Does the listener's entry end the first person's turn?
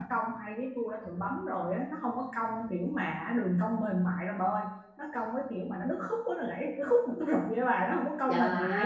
Yes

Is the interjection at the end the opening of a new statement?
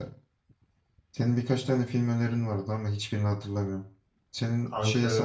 No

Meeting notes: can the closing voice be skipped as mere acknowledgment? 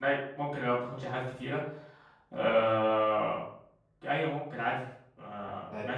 No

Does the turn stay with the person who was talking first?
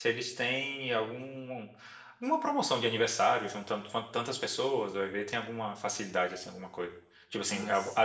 Yes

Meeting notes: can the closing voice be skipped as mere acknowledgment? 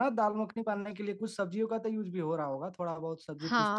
No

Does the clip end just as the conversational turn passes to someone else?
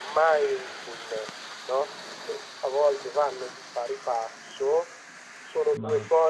No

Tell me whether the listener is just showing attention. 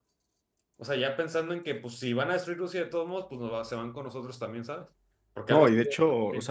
No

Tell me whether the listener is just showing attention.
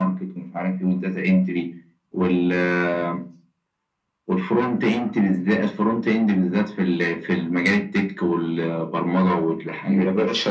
No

